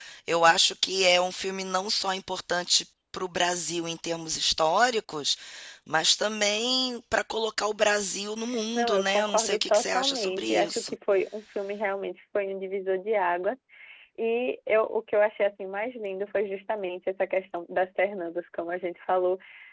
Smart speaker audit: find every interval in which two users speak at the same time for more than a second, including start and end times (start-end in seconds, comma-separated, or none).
8.8-10.9